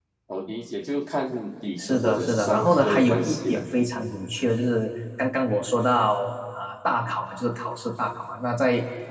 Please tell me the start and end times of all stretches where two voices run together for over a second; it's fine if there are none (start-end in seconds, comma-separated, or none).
1.8-3.6